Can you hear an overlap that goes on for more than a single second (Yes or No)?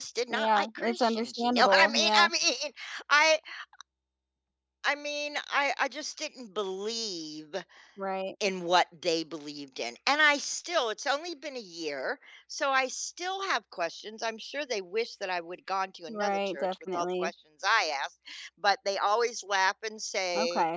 Yes